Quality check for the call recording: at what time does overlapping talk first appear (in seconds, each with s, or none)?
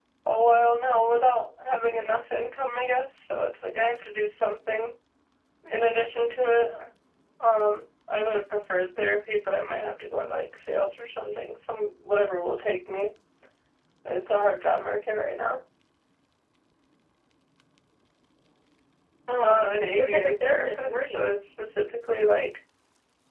19.4 s